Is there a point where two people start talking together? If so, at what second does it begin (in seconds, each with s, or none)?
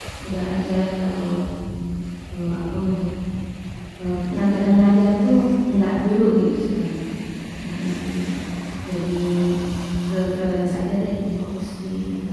none